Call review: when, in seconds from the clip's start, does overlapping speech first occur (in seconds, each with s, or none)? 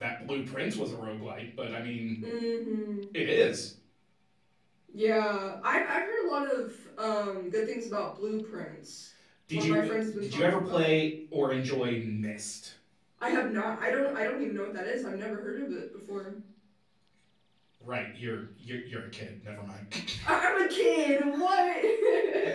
9.5 s